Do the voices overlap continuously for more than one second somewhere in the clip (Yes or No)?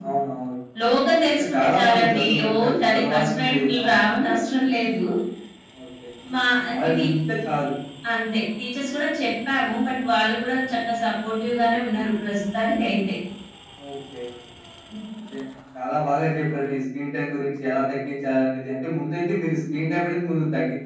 Yes